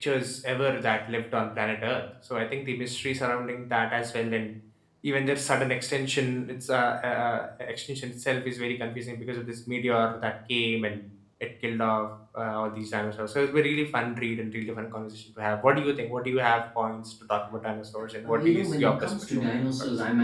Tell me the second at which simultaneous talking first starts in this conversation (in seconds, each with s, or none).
18.2 s